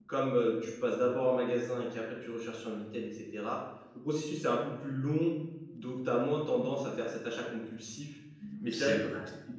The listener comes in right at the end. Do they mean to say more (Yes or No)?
No